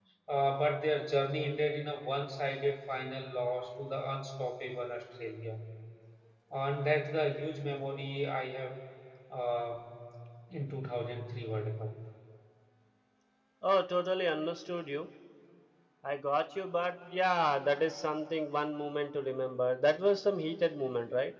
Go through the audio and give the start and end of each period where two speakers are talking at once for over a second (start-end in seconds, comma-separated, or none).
none